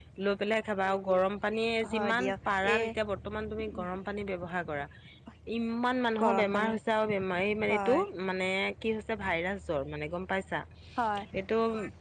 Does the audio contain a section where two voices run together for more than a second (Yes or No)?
No